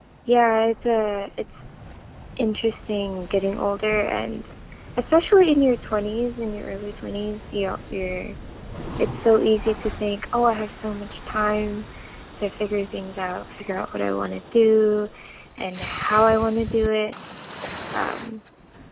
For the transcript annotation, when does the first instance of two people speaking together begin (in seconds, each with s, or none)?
none